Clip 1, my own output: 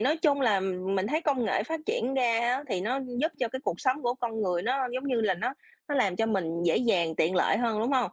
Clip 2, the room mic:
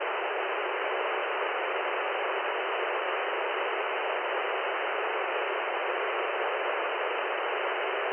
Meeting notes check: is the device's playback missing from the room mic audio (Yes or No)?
Yes